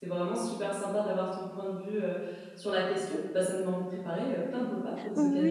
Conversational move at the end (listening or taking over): taking over